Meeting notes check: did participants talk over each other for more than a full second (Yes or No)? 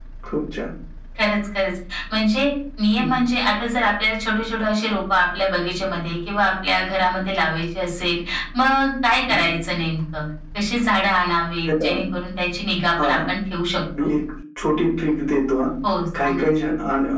No